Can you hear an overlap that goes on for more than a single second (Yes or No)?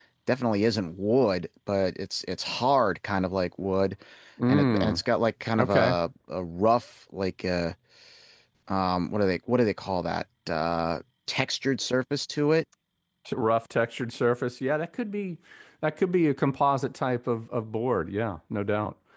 No